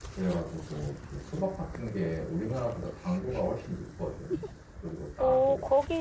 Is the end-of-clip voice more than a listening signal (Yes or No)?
Yes